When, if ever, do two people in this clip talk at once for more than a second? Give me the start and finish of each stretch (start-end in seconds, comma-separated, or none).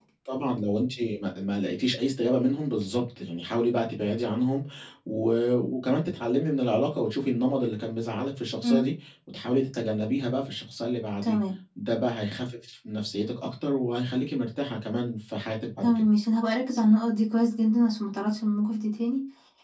none